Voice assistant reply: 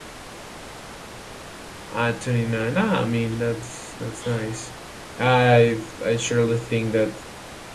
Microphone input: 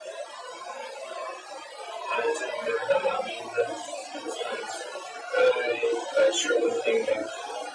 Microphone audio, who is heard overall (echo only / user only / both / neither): echo only